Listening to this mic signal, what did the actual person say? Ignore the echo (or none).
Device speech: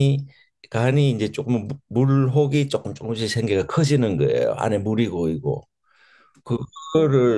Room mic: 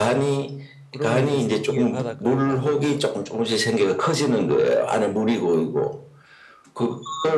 그러면 이제 새벽에 바닷가에 가서는